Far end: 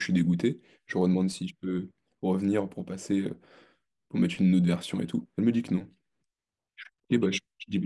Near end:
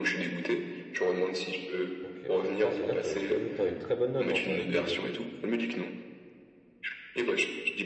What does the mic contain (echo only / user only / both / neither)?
both